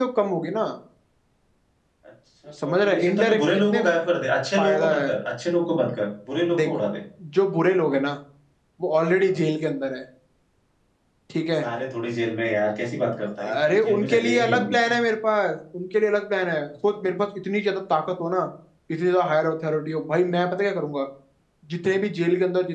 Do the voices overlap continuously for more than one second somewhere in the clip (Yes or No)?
Yes